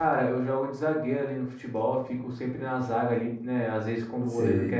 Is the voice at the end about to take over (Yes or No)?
No